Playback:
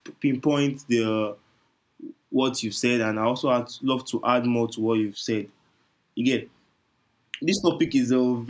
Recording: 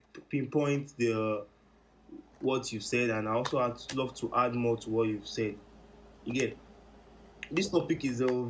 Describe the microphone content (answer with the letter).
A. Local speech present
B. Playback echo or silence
B